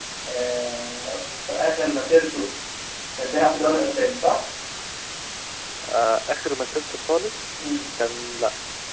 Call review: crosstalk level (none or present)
none